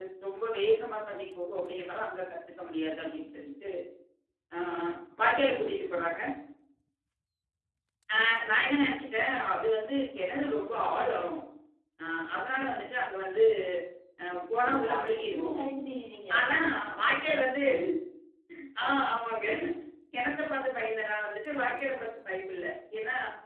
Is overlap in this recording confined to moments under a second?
No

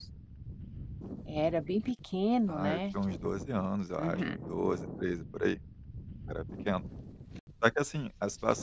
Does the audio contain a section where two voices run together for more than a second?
No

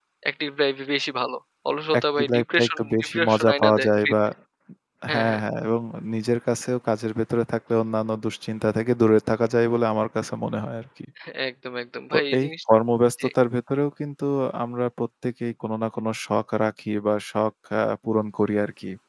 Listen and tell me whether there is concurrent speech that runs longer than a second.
Yes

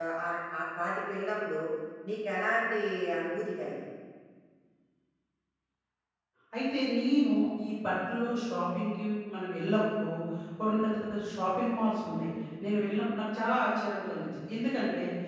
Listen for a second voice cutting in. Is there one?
No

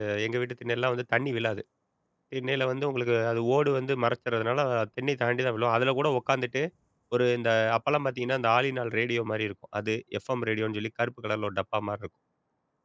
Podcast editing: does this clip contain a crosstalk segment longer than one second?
No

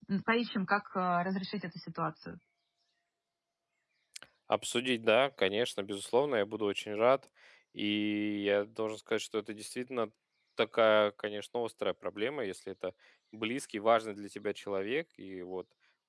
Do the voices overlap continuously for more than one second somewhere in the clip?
No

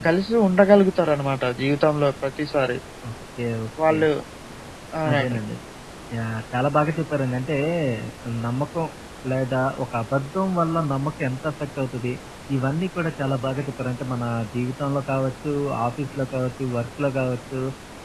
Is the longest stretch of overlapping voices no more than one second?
Yes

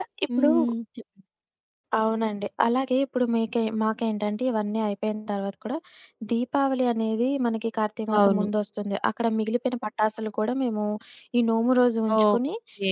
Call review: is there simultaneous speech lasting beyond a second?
No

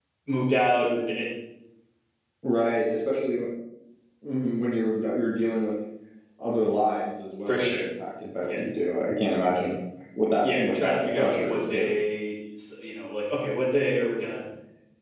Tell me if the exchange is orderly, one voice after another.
No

